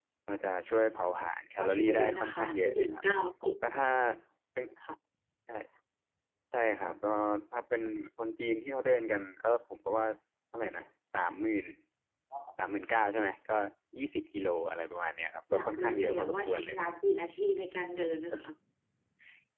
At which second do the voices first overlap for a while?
1.6 s

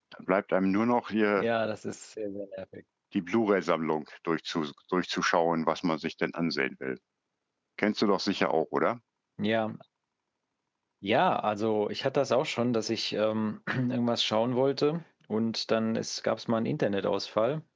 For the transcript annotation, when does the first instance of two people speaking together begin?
none

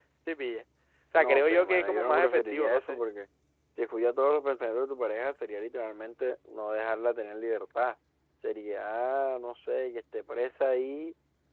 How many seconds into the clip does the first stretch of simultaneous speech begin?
1.1 s

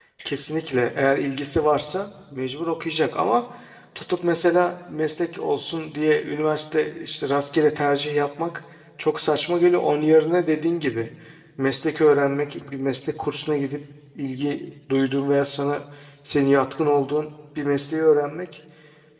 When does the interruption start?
none

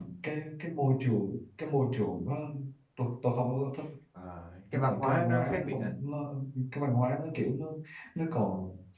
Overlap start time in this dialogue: 4.7 s

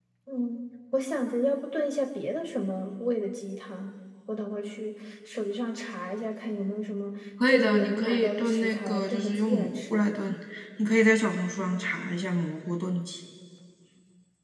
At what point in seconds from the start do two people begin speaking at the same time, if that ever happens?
7.4 s

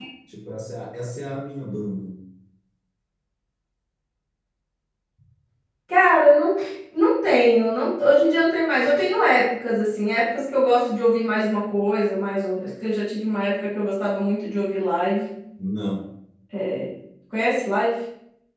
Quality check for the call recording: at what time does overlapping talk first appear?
none

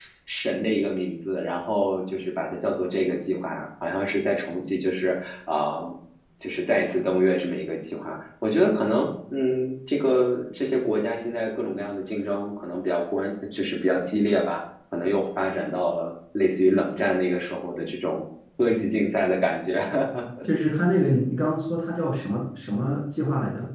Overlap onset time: none

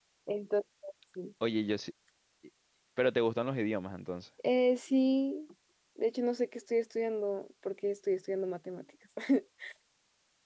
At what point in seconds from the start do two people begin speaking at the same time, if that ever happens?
none

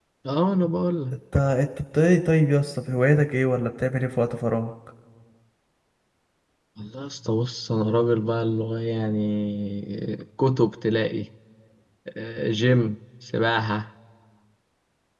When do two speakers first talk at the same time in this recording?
none

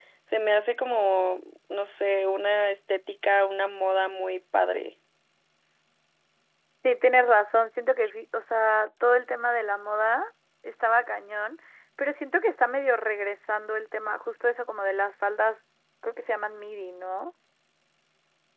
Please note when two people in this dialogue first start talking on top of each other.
none

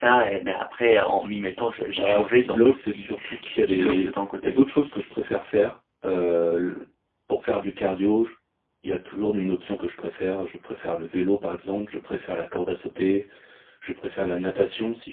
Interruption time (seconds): 2.0 s

